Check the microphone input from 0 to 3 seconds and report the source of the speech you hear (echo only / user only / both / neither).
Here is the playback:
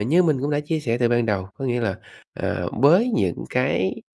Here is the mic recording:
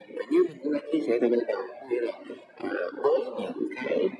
echo only